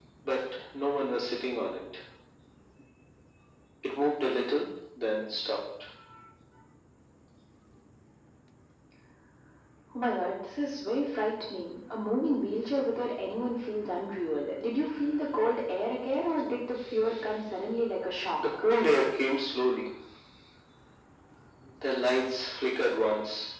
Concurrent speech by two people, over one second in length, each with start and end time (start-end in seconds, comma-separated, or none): none